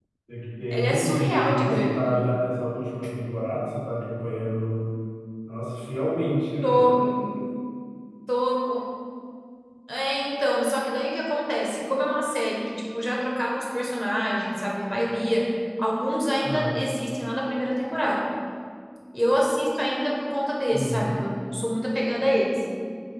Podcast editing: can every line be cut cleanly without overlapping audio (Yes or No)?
No